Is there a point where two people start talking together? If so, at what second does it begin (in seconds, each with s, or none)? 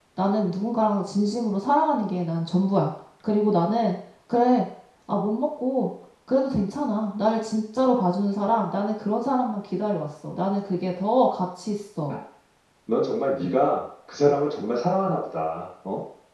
none